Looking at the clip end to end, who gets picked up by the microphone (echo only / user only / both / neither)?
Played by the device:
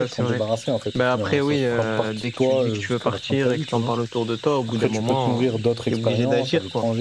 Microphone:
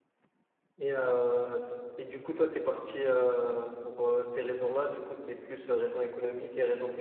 user only